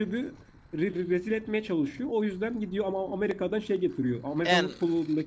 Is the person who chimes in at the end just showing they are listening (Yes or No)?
Yes